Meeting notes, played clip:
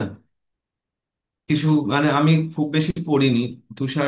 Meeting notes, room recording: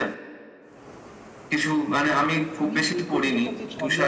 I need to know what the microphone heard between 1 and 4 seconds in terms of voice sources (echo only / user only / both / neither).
both